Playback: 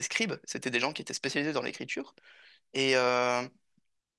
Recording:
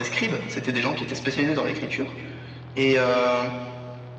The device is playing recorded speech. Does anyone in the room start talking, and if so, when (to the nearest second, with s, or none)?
none